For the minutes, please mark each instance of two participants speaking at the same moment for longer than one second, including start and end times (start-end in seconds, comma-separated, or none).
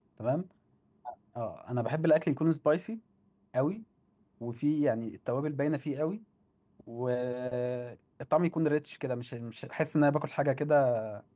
none